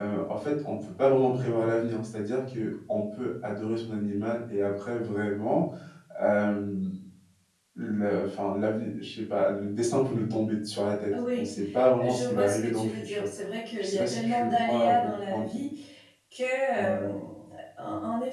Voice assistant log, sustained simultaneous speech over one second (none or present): present